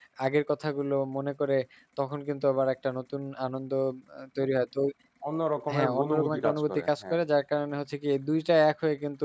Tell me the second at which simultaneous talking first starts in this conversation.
5.7 s

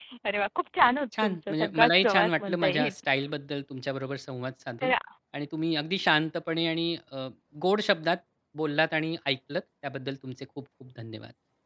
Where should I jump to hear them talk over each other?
1.2 s

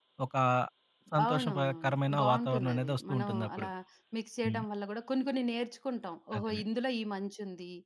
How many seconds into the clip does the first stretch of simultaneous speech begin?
1.2 s

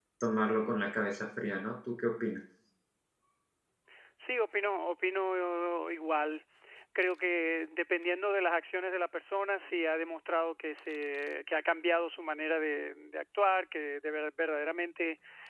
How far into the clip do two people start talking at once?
none

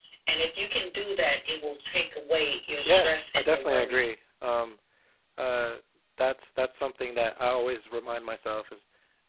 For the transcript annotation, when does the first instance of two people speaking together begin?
2.9 s

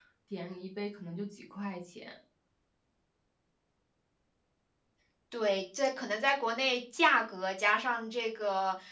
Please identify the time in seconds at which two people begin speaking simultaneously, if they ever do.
none

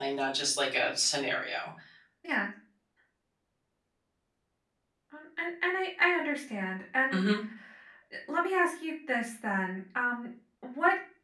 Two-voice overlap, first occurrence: none

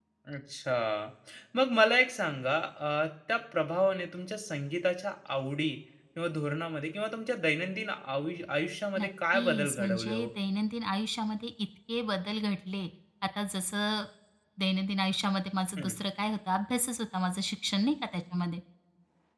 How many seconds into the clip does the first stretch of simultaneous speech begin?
9.0 s

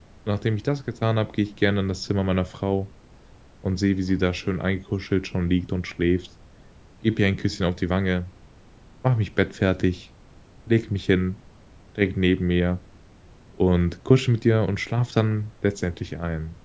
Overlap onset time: none

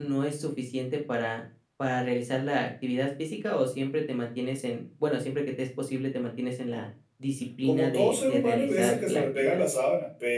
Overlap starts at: 7.6 s

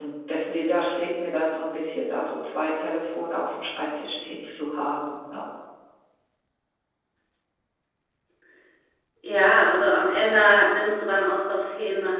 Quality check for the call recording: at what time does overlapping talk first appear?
none

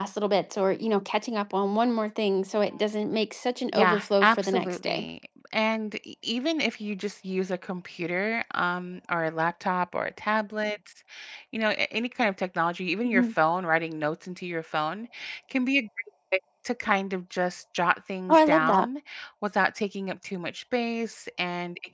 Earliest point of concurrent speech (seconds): 3.7 s

